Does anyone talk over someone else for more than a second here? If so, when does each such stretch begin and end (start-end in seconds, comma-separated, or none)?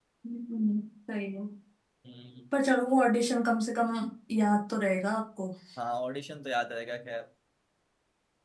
none